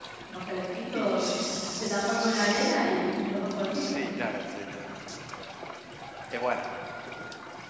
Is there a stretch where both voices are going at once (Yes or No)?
Yes